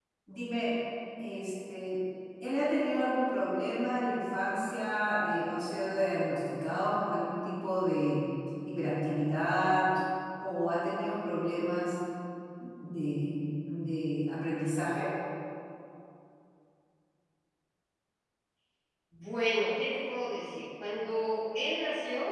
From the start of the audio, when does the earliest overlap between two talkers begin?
none

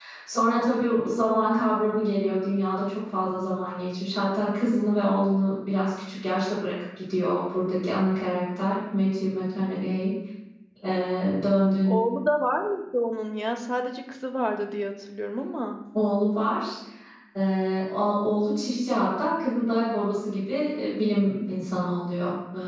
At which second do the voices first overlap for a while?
none

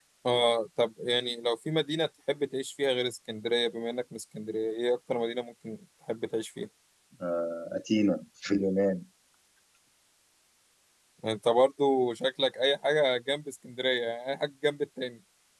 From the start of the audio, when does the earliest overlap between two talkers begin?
none

